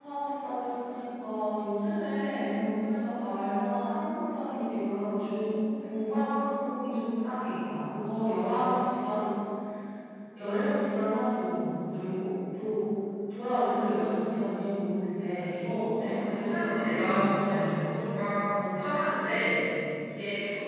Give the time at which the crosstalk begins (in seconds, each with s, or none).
15.9 s